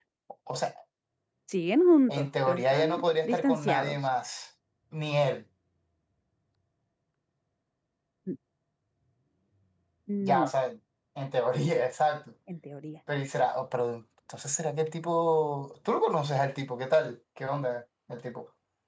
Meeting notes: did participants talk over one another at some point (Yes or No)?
Yes